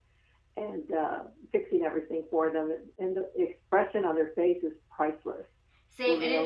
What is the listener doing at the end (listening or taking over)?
taking over